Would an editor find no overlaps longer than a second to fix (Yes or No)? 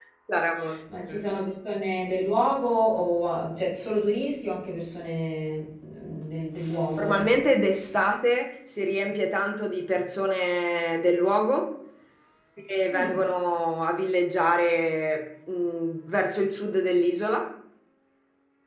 Yes